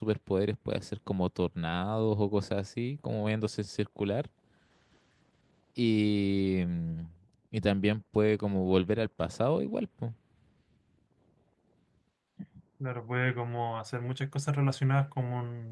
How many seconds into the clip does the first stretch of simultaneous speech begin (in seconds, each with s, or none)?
none